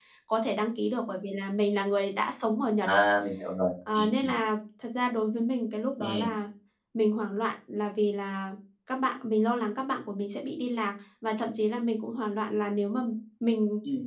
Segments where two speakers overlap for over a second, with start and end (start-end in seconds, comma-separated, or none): none